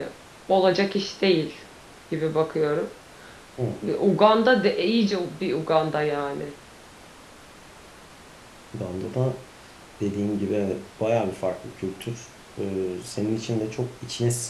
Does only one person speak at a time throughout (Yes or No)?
Yes